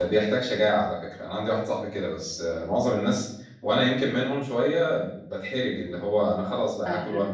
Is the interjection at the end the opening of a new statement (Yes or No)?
Yes